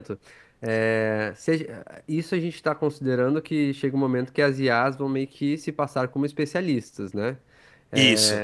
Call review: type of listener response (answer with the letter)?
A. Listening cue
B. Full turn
A